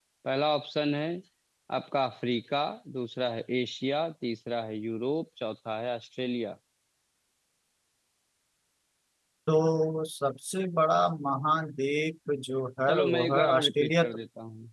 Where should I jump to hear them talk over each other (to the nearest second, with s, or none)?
13 s